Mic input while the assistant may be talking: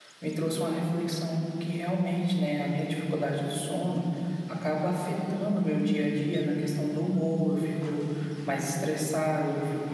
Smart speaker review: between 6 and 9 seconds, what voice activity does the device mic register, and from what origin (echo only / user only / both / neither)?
user only